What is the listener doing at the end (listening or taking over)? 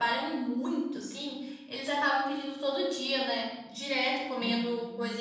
listening